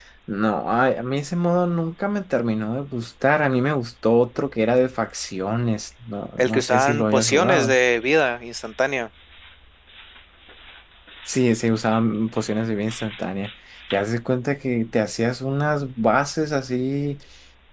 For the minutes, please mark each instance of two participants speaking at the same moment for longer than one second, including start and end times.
6.4-7.8

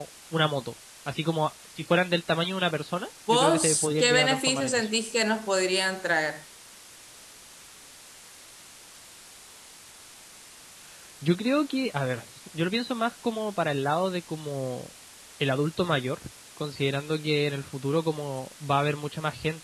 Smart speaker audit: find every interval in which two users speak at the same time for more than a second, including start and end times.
3.3-4.9

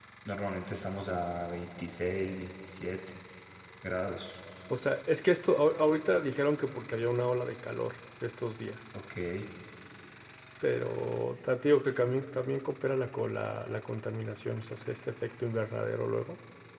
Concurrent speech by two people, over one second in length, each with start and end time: none

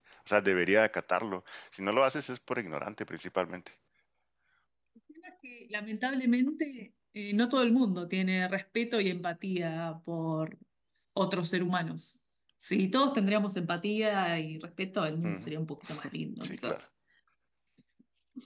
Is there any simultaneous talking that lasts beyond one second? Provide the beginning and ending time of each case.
none

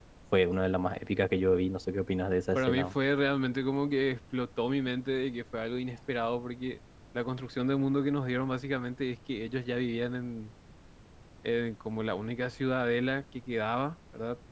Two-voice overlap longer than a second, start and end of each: none

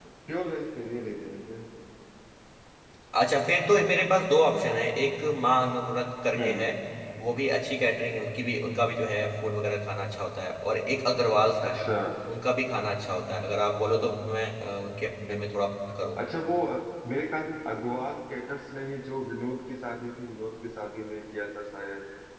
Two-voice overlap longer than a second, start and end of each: none

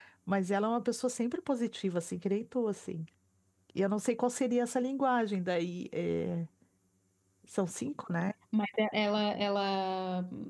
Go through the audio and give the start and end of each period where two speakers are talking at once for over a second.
none

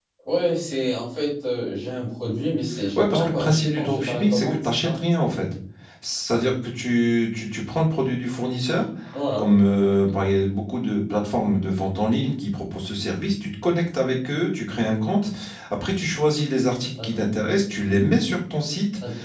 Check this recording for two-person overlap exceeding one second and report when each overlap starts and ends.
3.0-4.9

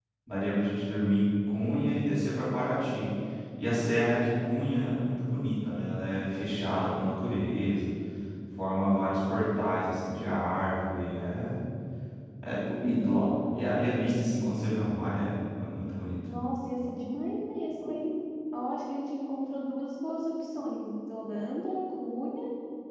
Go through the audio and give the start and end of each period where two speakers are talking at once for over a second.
none

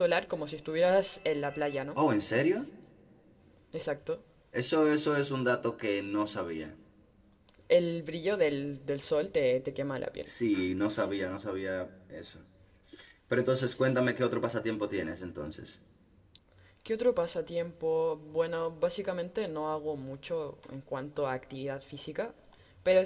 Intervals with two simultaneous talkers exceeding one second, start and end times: none

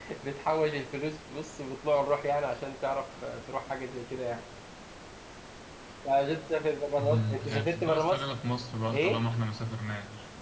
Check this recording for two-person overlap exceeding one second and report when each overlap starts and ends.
7.0-8.2

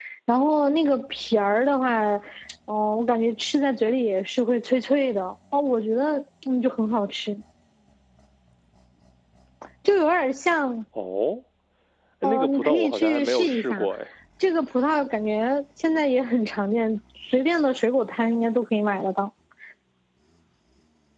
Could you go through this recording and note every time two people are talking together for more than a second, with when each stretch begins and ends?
12.2-13.9

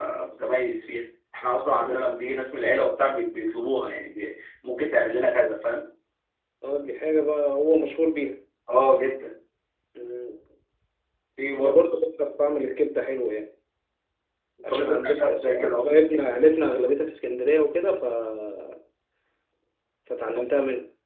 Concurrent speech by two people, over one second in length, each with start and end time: 14.7-16.4

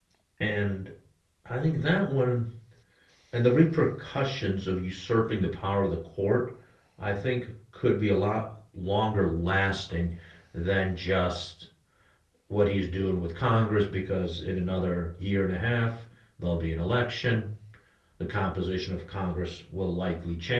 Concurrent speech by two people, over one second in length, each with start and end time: none

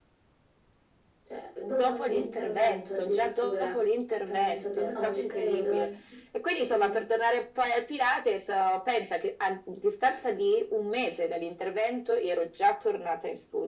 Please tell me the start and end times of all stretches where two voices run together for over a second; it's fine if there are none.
1.7-3.8, 4.3-5.9

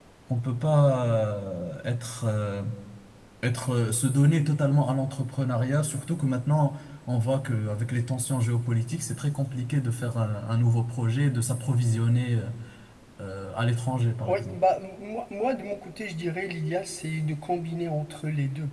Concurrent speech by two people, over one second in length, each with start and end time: none

